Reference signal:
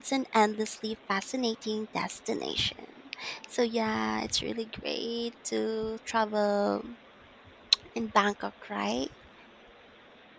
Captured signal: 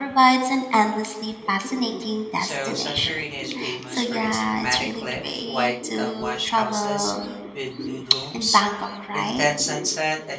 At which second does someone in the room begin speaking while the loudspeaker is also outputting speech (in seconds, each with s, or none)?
2.4 s